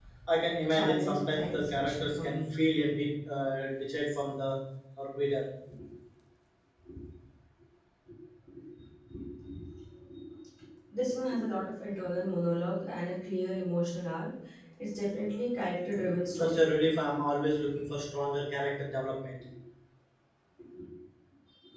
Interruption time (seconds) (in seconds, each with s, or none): 0.6 s